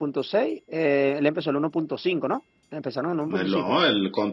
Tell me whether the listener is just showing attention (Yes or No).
No